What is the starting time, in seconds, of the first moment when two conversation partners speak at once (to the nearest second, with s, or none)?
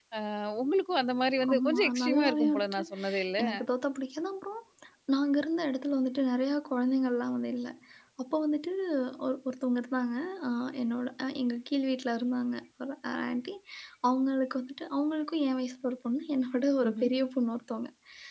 1 s